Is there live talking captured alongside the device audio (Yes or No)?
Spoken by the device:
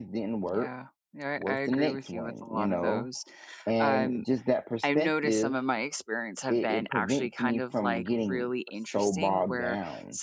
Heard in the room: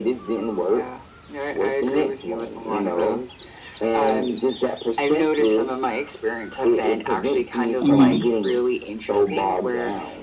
Yes